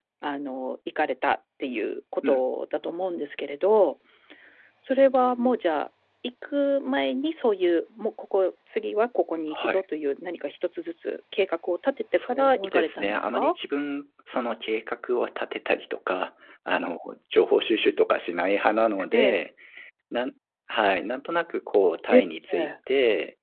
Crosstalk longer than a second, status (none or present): present